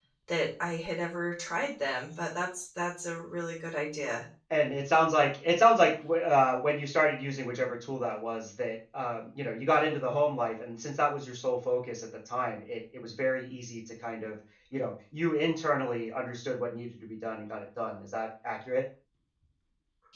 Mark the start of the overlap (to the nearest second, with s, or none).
none